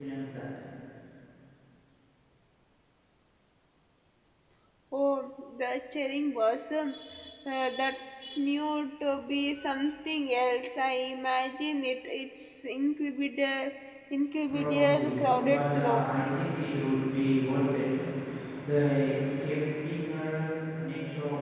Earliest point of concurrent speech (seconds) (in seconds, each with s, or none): 14.5 s